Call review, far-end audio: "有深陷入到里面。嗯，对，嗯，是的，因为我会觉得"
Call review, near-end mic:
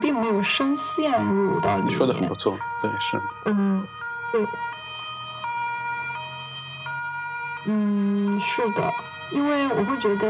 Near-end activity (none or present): present